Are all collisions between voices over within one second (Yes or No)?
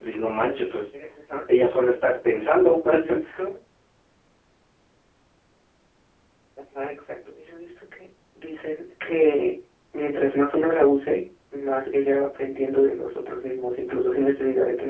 Yes